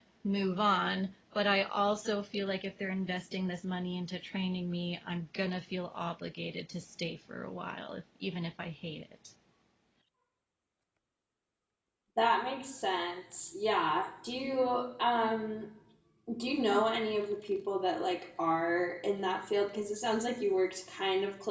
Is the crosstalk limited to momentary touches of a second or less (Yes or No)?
Yes